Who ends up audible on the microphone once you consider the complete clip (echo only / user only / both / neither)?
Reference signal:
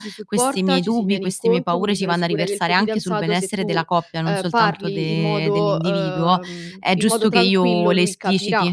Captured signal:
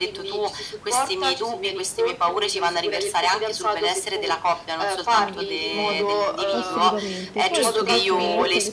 both